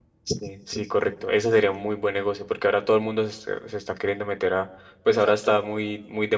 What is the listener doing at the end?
listening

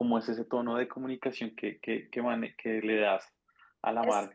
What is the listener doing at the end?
listening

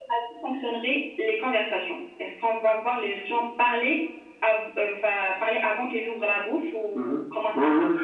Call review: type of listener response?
taking over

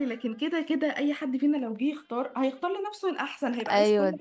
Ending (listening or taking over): taking over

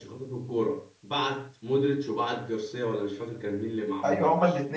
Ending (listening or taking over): taking over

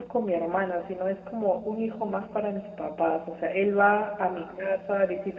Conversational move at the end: listening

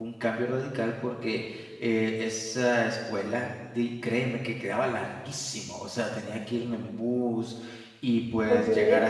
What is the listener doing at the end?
listening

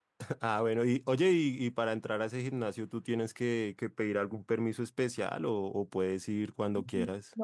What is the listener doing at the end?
taking over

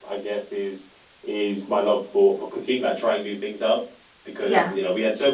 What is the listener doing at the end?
listening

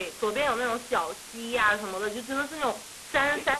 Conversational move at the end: listening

